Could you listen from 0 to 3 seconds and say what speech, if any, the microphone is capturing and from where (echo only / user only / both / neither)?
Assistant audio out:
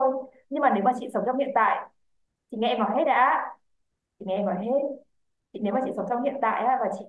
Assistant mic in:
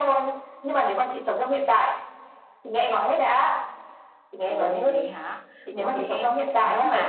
echo only